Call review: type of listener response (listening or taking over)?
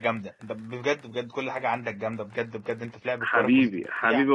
taking over